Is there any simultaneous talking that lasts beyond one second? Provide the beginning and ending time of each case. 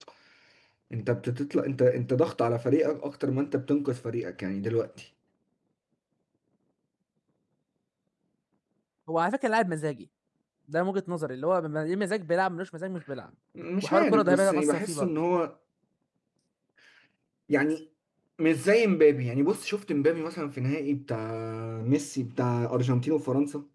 13.8-15.1

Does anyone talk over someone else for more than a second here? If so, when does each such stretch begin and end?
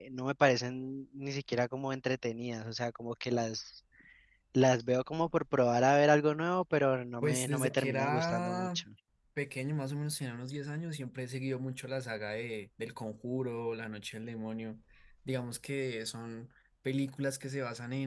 7.2-8.8

